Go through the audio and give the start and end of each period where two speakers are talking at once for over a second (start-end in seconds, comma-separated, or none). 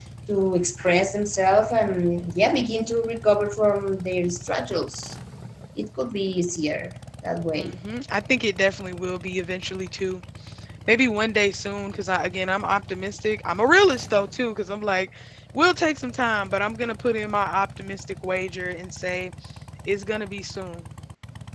none